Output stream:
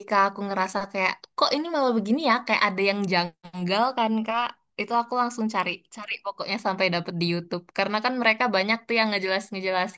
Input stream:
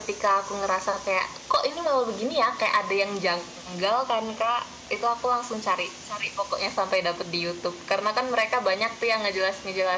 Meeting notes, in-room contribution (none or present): none